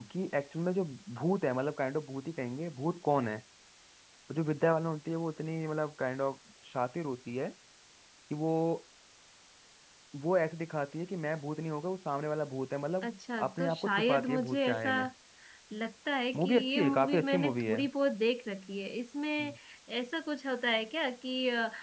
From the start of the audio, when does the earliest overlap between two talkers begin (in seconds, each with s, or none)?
13.5 s